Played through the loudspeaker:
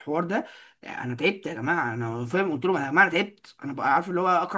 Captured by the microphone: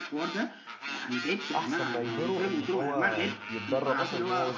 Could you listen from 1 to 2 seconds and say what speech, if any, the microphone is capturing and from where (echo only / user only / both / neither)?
both